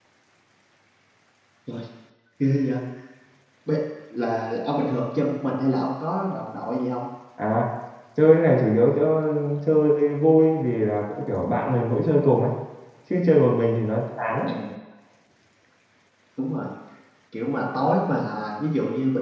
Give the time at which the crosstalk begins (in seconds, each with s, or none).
none